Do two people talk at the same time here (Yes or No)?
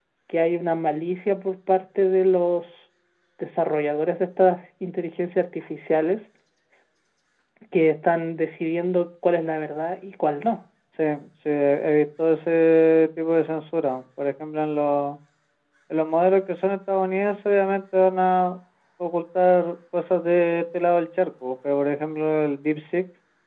No